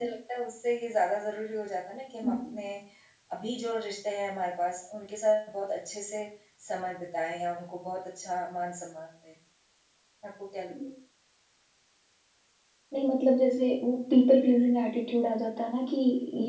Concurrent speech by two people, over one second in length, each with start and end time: none

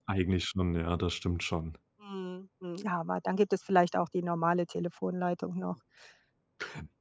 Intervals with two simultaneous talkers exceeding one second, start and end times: none

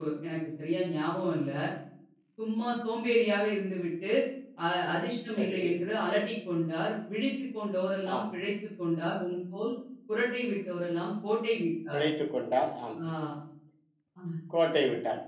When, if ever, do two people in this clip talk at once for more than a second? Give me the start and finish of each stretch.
none

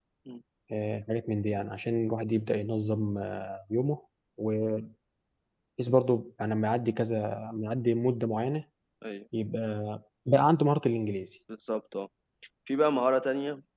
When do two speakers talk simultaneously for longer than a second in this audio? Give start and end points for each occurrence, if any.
none

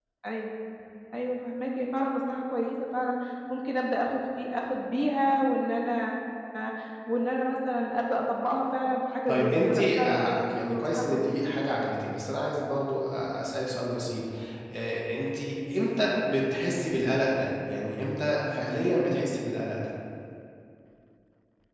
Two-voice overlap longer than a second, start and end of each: 9.3-11.3

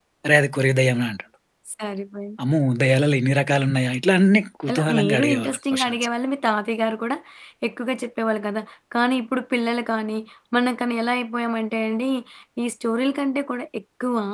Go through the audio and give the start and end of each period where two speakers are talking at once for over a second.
4.7-6.0

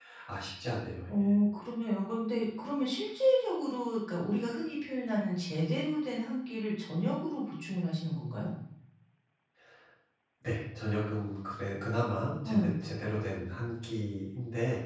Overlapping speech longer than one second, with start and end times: none

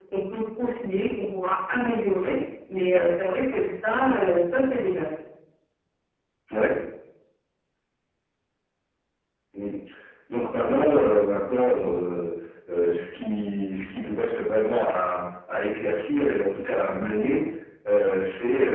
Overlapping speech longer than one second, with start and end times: none

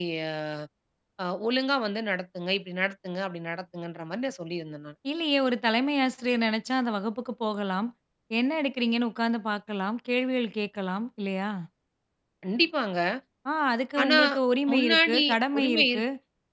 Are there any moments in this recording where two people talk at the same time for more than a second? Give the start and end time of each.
14.7-16.0

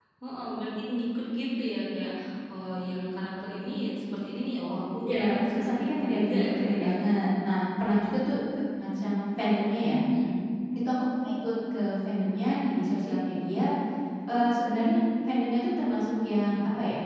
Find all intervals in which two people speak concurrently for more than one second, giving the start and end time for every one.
5.0-6.9

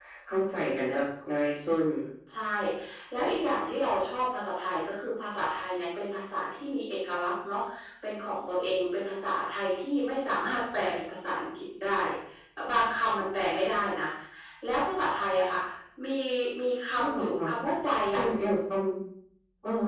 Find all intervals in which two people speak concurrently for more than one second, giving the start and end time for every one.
none

